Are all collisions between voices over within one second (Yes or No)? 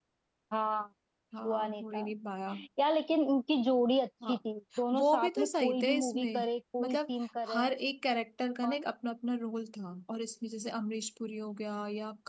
No